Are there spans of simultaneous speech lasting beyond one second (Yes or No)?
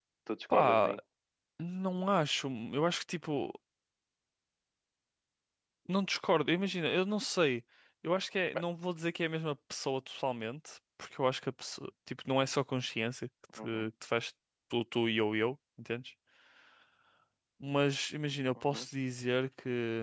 No